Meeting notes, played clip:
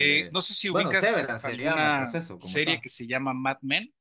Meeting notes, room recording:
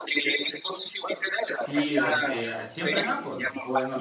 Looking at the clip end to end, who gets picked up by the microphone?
both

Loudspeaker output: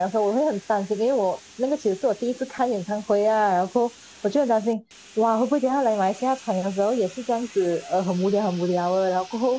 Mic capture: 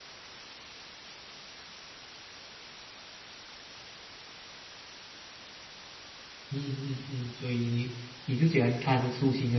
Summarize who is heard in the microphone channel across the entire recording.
user only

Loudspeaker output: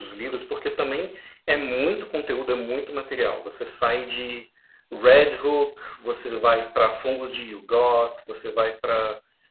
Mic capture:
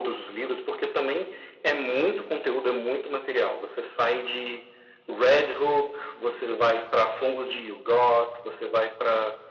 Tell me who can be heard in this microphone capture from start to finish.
echo only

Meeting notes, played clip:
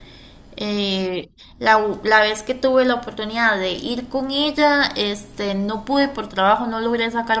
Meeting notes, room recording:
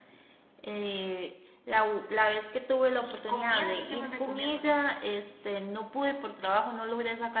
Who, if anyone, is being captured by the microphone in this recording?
both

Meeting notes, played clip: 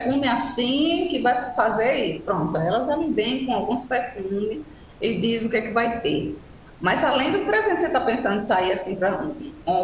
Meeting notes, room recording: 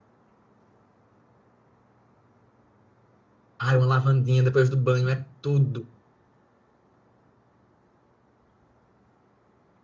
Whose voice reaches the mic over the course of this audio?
user only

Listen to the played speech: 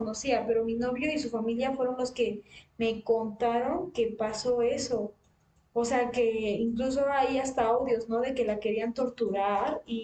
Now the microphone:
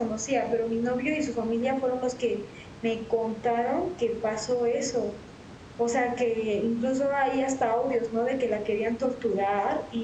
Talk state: echo only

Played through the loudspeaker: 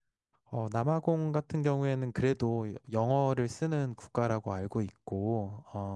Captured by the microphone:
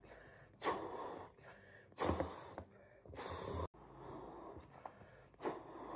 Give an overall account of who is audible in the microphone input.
neither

